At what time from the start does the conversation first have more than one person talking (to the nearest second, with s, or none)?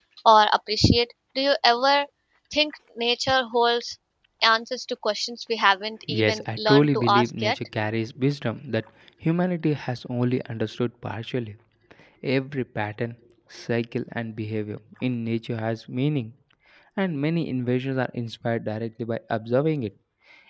6 s